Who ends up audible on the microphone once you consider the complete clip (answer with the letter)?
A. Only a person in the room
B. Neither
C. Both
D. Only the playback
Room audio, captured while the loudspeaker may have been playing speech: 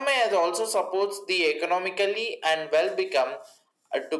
D